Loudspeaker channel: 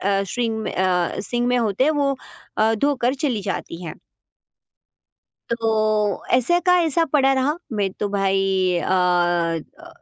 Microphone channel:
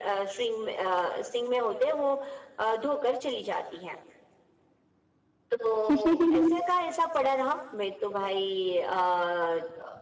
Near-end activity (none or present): present